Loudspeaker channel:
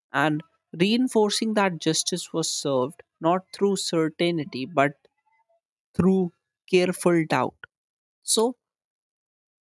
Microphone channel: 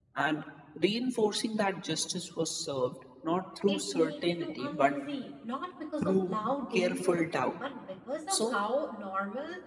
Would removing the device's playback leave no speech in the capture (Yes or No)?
No